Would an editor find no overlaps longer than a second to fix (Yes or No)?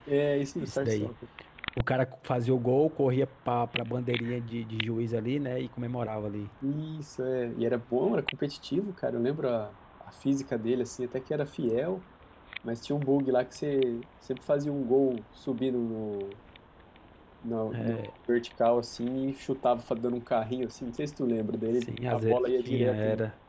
No